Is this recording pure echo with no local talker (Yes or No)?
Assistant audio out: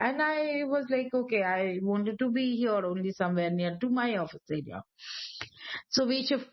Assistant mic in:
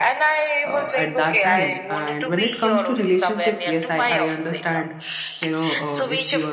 No